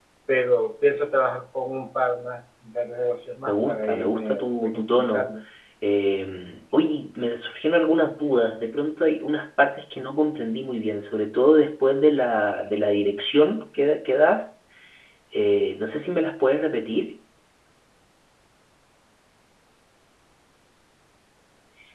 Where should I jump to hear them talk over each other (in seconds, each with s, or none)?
3.5 s